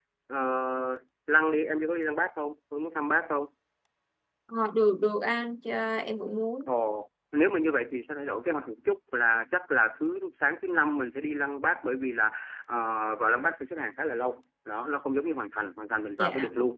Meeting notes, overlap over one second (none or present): none